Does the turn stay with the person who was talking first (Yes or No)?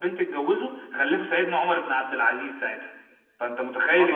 No